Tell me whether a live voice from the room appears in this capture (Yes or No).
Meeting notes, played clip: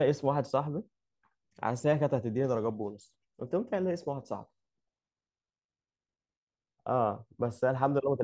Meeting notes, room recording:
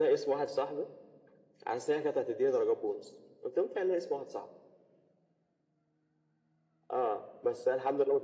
No